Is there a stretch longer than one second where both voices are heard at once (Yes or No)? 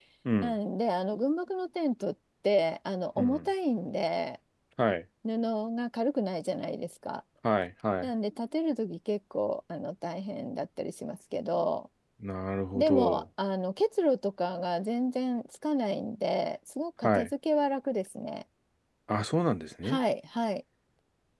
No